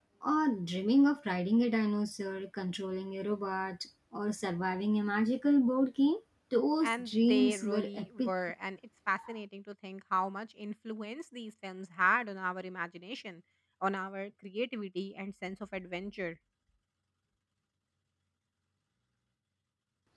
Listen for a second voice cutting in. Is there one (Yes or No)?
Yes